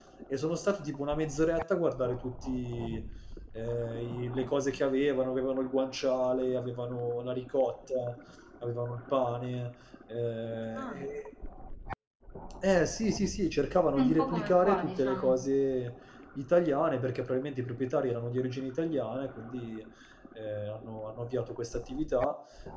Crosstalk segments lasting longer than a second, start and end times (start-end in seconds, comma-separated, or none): 13.9-15.3